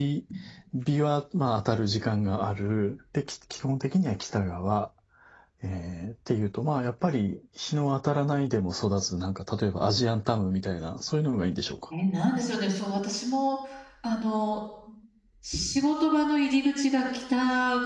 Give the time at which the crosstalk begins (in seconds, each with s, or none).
none